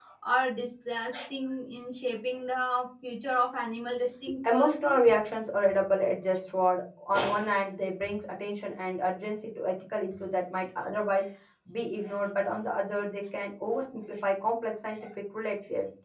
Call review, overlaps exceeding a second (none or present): none